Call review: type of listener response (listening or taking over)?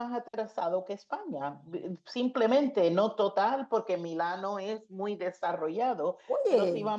listening